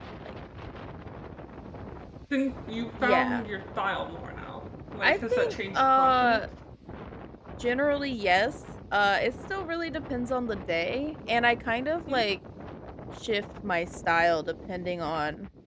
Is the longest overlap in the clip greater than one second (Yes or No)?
Yes